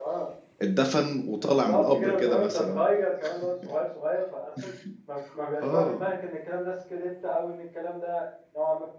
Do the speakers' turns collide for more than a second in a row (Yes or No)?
Yes